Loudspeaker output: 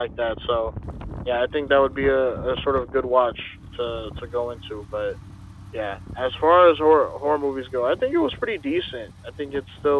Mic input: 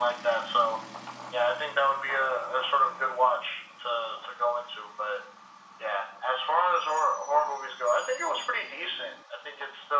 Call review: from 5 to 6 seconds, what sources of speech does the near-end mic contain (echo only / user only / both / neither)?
echo only